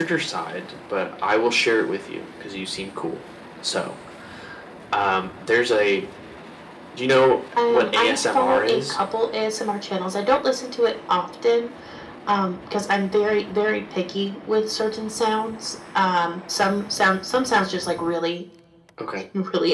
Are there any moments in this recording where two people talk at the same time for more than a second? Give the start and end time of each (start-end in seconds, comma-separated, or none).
7.7-9.0